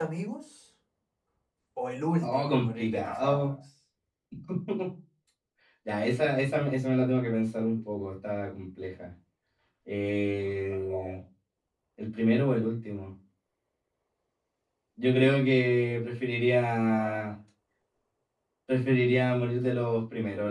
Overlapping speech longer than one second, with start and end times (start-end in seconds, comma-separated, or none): 2.2-3.5